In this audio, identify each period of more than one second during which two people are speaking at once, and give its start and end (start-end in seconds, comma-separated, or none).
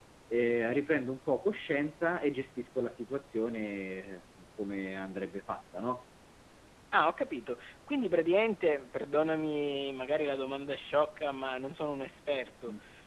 none